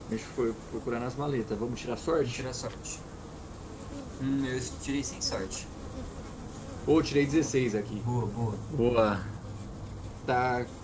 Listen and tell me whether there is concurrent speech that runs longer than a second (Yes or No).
No